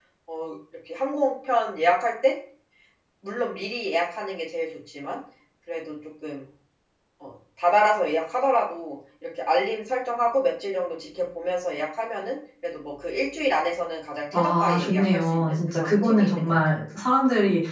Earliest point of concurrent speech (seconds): 14.3 s

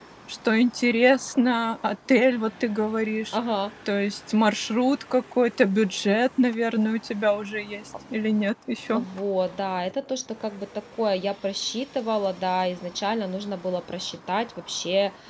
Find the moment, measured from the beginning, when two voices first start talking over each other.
none

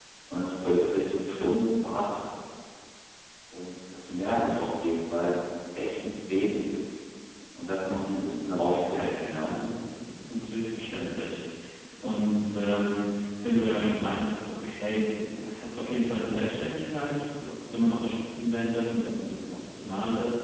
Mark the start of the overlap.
7.8 s

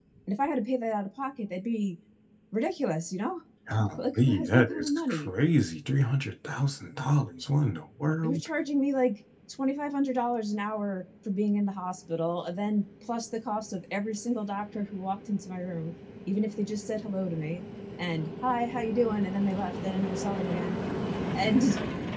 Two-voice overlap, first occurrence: 4.0 s

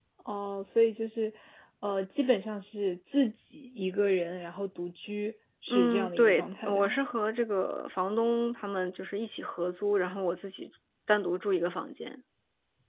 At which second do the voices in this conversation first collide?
5.7 s

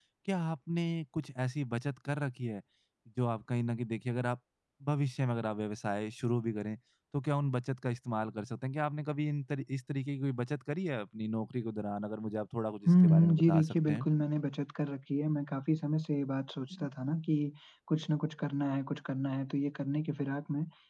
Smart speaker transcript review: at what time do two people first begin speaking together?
12.9 s

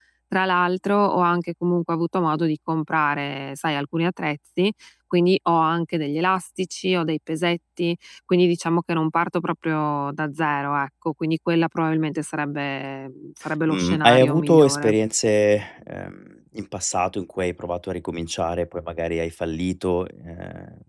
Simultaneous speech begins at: 13.7 s

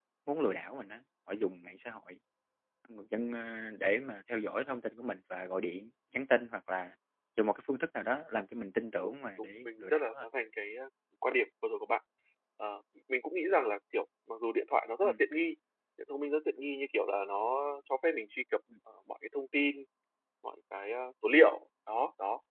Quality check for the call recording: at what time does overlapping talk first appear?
9.0 s

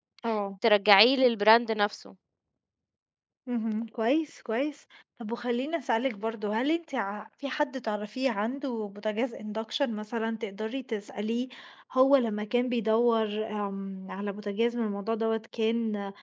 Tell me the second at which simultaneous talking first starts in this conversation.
none

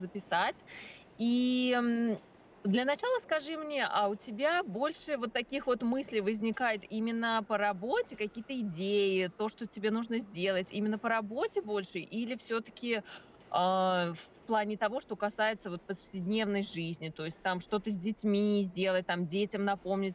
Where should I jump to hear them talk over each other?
none

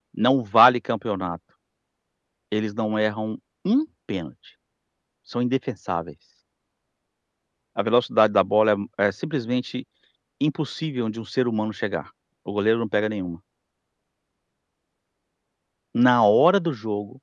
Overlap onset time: none

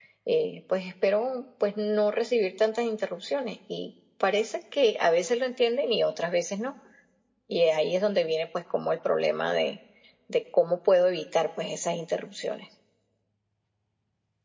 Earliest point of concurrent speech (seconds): none

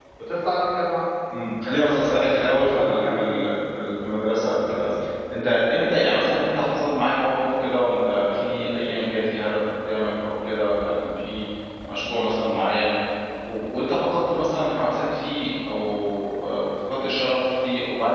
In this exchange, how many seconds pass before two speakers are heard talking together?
1.8 s

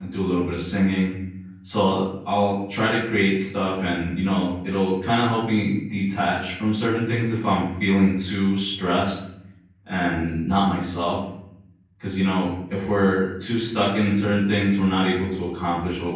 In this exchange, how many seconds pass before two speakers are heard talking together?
none

